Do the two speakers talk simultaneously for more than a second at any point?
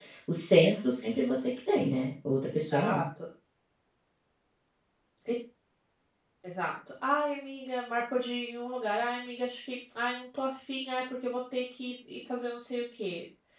No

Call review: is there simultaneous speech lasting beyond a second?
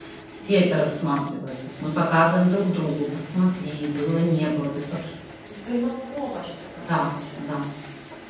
No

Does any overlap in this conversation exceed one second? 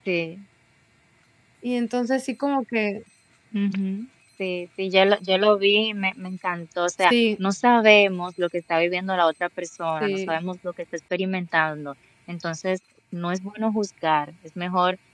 No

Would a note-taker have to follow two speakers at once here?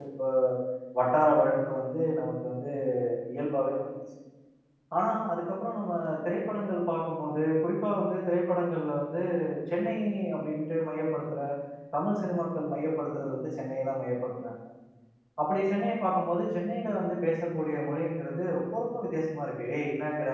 No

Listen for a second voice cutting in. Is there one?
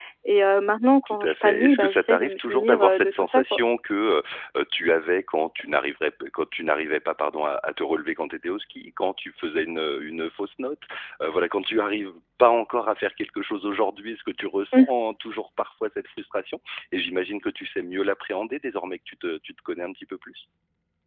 Yes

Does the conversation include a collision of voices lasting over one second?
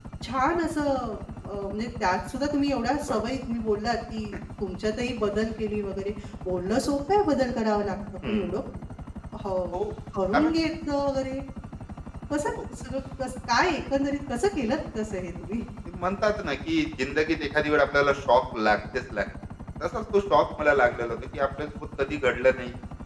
No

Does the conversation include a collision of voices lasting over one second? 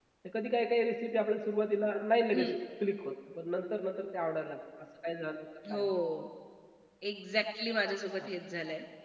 No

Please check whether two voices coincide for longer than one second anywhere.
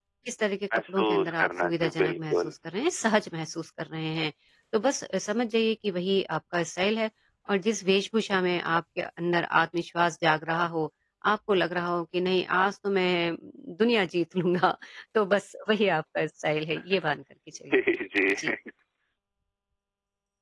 Yes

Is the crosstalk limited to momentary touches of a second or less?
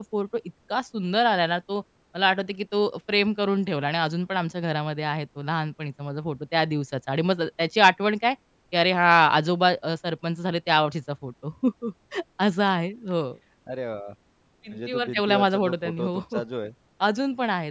No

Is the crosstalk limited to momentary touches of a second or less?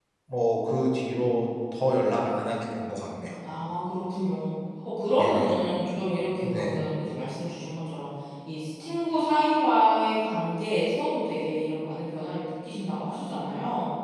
Yes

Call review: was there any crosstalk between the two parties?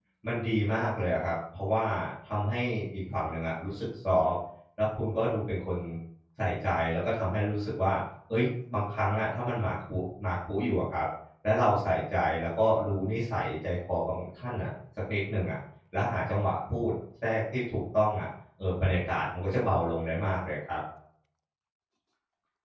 No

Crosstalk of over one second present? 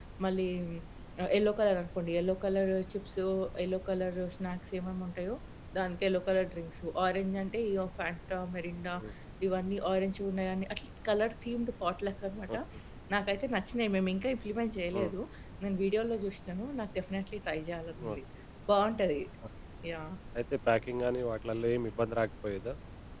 No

